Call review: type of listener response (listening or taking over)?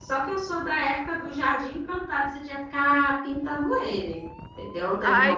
taking over